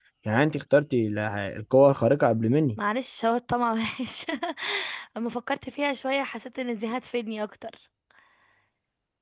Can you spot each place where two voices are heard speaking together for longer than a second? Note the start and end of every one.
none

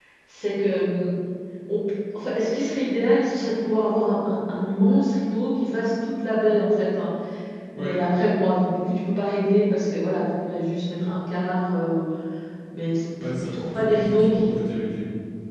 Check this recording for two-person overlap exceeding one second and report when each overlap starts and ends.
13.2-14.6

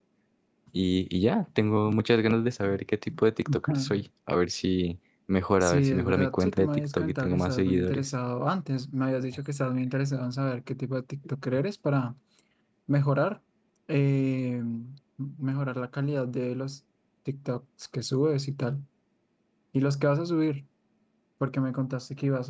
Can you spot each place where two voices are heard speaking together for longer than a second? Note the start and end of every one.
5.6-8.0

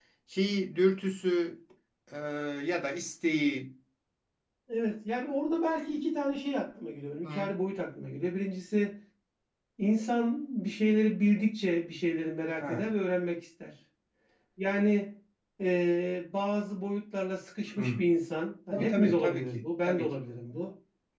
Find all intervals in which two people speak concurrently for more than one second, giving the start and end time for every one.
18.7-20.1

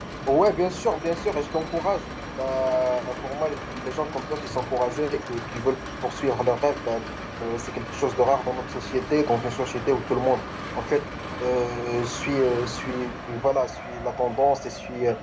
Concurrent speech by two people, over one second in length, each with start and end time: none

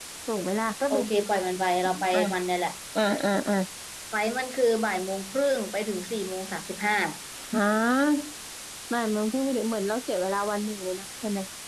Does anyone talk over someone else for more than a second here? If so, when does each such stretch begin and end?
none

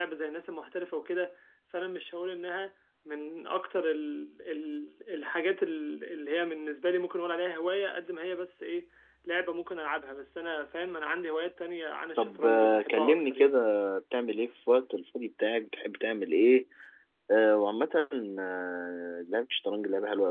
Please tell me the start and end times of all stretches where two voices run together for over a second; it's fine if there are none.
12.2-13.5

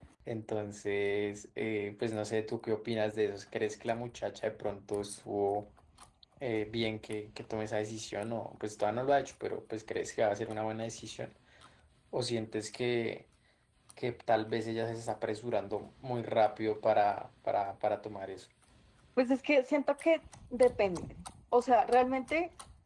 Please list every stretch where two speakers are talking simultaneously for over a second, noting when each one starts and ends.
none

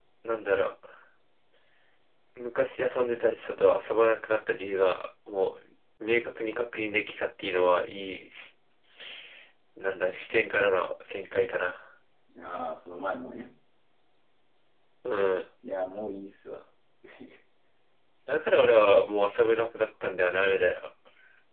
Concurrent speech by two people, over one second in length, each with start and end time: none

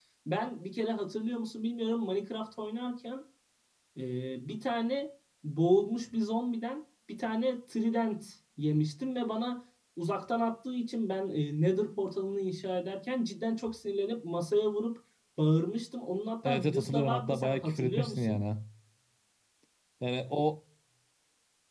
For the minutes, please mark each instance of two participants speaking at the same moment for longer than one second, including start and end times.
16.4-18.4

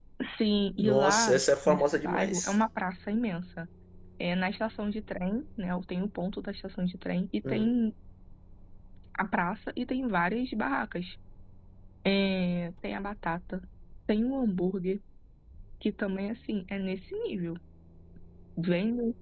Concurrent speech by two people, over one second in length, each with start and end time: 0.8-2.5

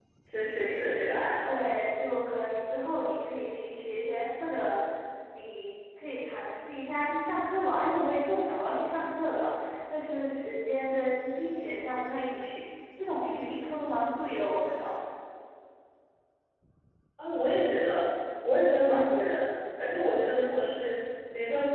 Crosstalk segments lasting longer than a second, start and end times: none

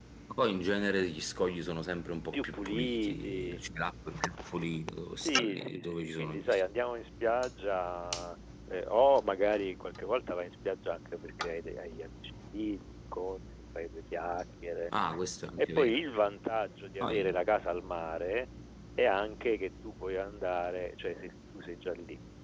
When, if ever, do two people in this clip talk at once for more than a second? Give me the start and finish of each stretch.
2.3-3.6, 5.2-6.6

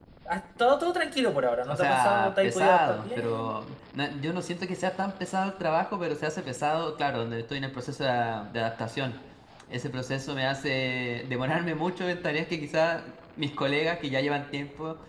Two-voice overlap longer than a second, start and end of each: 1.7-3.5

